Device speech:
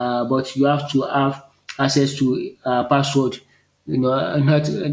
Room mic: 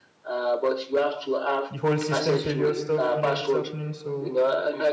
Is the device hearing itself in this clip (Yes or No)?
Yes